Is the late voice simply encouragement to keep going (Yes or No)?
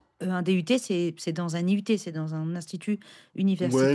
No